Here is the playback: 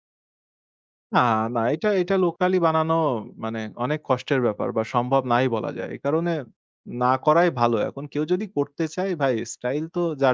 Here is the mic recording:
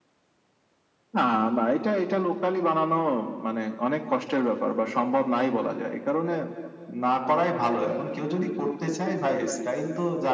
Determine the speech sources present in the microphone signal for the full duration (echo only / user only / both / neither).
echo only